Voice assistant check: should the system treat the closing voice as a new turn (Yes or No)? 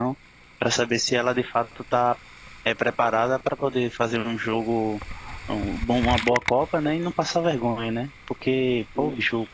No